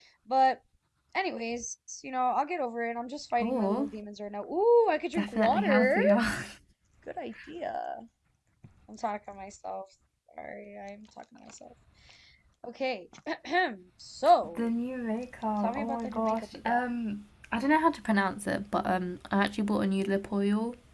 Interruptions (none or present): present